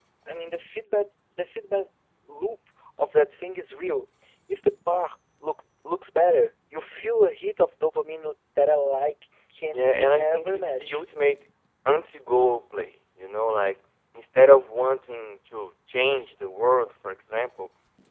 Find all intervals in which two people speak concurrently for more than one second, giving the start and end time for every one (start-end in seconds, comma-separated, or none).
9.7-11.0